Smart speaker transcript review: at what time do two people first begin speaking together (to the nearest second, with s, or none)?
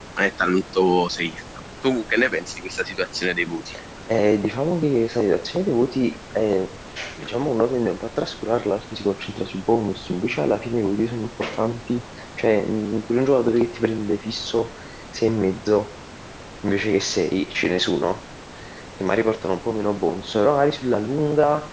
none